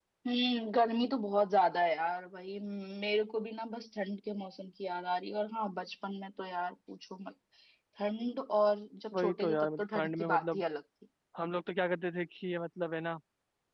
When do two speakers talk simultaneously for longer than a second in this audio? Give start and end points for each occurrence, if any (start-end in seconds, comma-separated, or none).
9.1-10.6